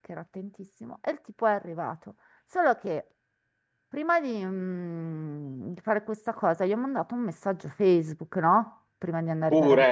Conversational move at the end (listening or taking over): listening